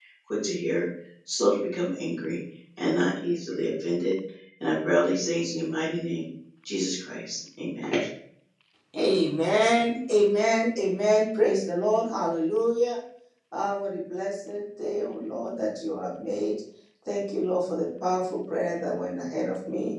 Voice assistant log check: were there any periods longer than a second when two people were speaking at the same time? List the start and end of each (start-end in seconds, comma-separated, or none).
none